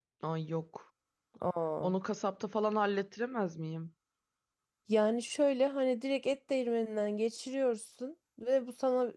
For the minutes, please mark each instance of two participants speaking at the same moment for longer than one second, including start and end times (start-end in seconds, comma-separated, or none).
none